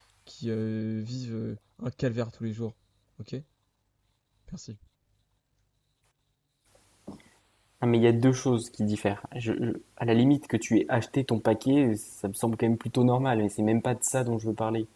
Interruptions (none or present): none